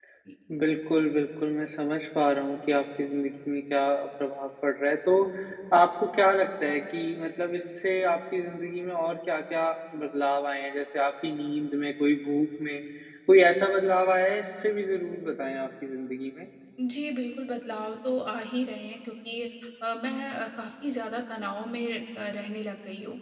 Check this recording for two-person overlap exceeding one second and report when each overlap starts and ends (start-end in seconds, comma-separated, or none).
none